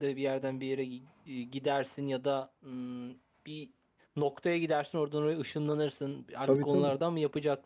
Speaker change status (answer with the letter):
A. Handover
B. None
B